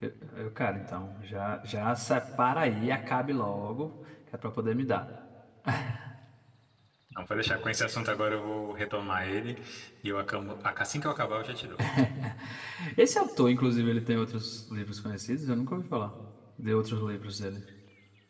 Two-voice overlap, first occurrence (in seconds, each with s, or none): none